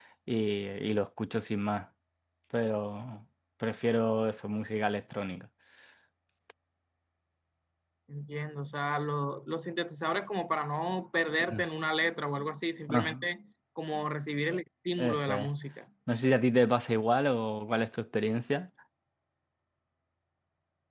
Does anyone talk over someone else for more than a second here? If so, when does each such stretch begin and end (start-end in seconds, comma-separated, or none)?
none